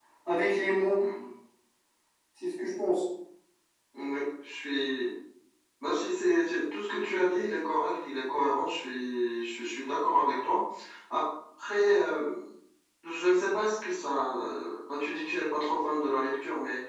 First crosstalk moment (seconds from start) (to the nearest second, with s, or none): none